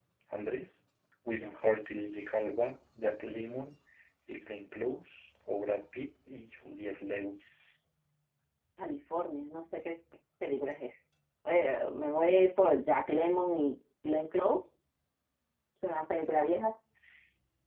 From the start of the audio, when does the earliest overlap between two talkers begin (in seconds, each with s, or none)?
none